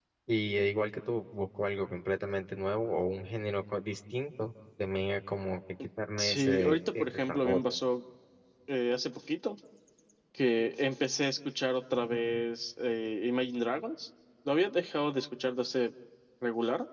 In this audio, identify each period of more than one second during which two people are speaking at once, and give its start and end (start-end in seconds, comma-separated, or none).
6.2-7.6